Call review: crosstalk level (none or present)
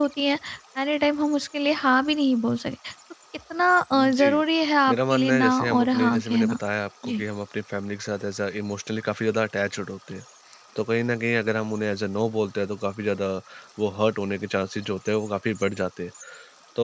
present